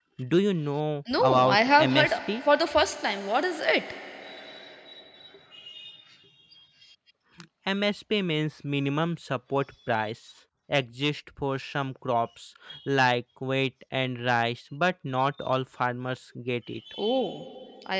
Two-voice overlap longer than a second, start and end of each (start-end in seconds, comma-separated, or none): 1.2-2.4